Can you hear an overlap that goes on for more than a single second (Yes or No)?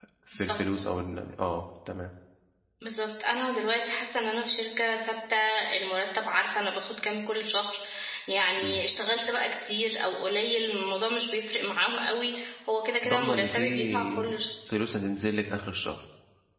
Yes